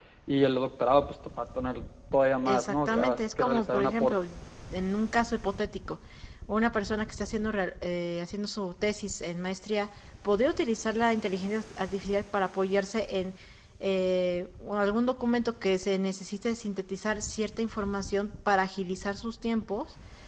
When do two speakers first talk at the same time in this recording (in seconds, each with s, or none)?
2.5 s